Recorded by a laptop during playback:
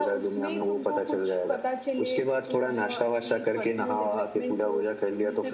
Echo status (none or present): present